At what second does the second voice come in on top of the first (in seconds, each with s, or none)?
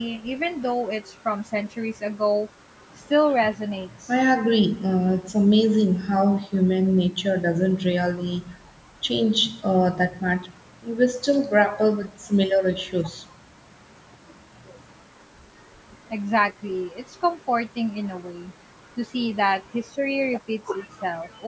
none